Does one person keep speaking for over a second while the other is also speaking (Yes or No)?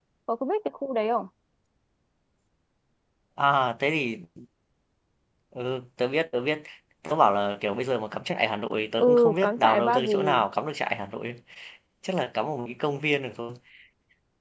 Yes